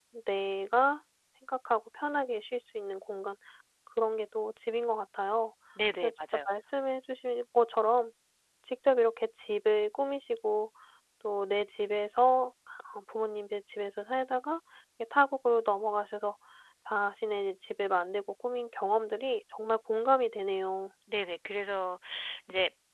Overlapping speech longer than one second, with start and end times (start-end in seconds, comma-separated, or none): none